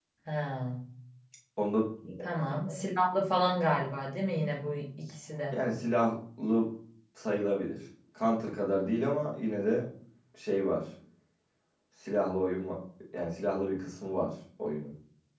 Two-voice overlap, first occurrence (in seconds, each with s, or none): none